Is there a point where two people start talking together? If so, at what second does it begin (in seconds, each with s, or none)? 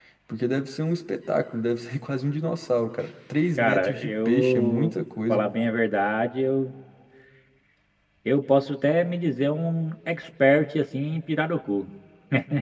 3.6 s